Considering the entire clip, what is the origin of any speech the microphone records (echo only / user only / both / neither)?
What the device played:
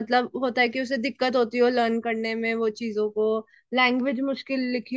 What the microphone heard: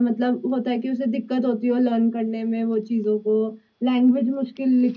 echo only